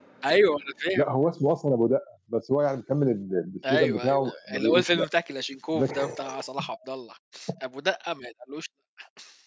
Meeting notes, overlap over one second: present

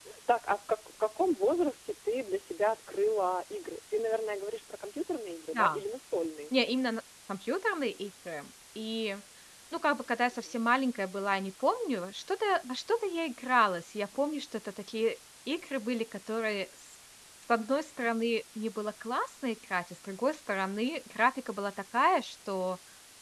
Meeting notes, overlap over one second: none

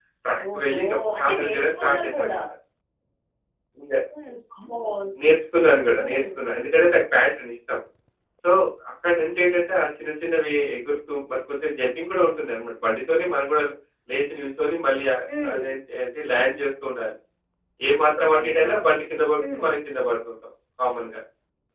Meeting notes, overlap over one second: present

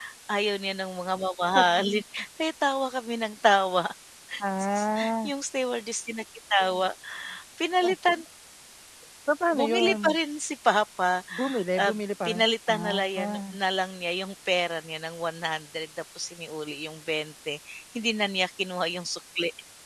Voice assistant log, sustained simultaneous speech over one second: present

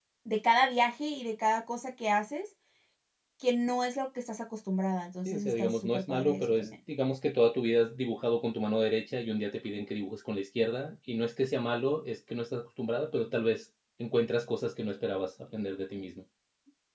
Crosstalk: present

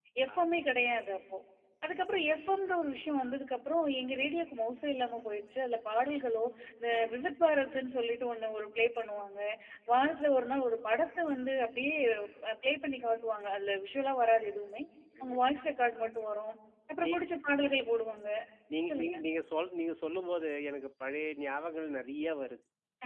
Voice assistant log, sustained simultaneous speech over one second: none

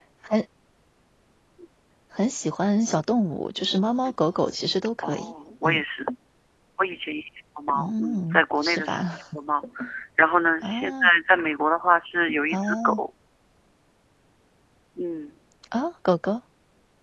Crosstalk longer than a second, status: present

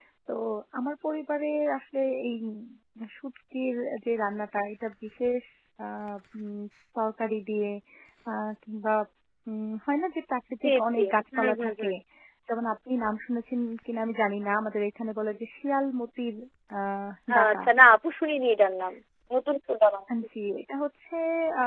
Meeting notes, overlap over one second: present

